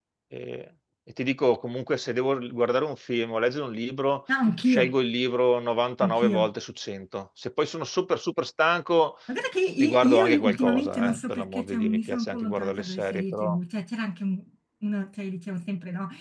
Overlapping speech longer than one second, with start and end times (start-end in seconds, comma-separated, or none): 9.8-13.6